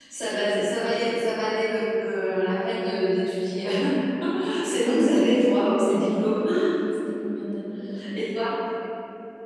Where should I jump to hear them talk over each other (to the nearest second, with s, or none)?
5 s